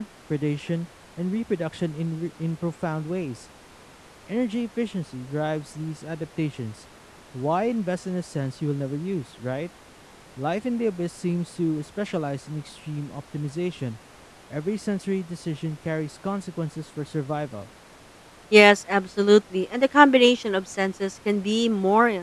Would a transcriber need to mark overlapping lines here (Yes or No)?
No